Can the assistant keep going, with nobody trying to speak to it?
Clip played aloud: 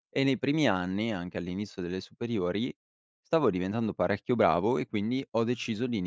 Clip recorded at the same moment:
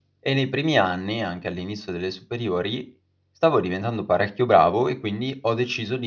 Yes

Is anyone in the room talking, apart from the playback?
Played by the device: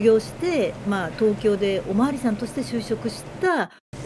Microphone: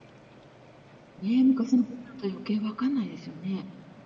Yes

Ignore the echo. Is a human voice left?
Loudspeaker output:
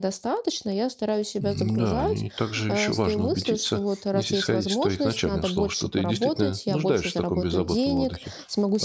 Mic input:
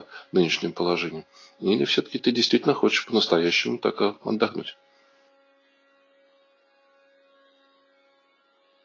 Yes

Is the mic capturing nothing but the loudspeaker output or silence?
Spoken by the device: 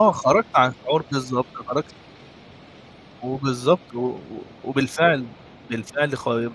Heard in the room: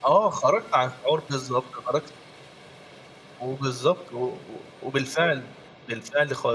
Yes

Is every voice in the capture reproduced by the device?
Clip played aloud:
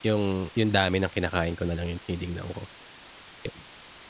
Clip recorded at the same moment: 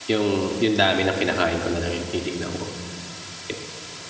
Yes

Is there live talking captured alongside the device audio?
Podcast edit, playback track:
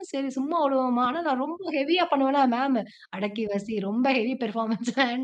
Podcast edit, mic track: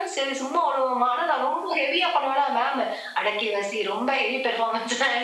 No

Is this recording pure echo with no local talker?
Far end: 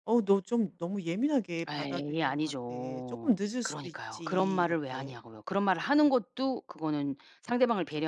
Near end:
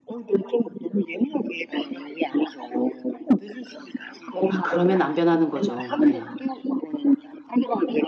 No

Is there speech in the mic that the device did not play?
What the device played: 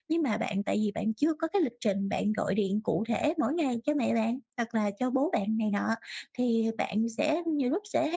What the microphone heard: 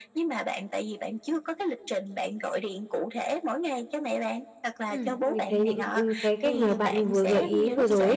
Yes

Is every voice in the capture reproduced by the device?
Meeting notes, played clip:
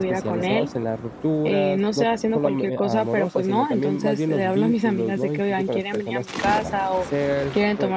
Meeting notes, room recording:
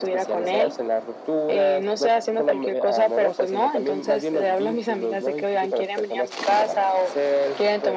Yes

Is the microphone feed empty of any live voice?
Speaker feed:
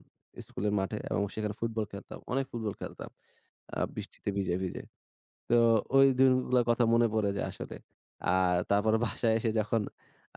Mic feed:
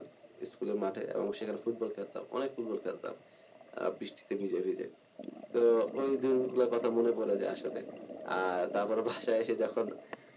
Yes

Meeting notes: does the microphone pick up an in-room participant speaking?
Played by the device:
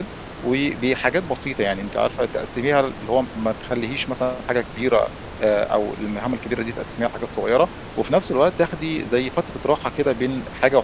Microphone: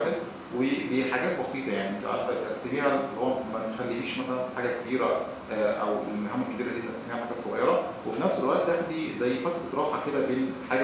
No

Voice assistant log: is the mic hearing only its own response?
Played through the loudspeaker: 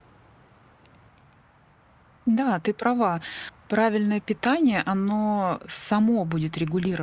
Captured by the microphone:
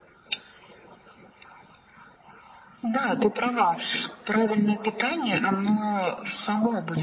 Yes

